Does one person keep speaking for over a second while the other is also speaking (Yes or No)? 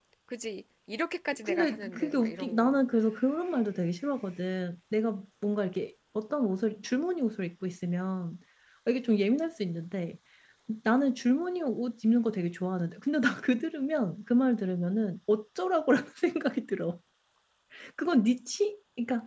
Yes